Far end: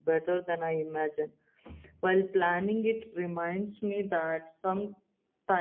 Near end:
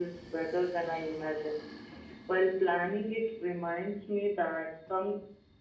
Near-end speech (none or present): none